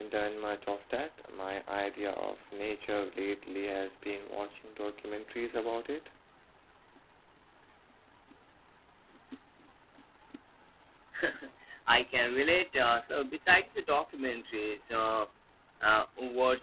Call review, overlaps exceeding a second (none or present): none